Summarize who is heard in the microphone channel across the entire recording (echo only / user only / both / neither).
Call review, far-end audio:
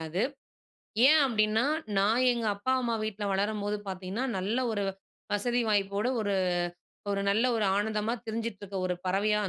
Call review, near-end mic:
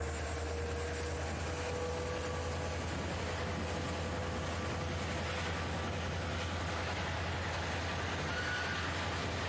neither